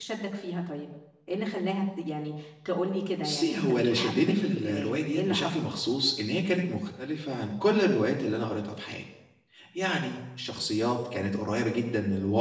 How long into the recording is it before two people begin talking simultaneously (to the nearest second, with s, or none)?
3 s